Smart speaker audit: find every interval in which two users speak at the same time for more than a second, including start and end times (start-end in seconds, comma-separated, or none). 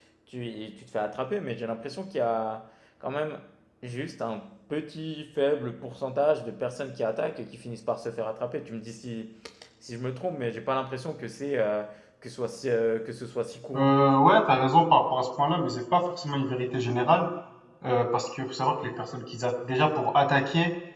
none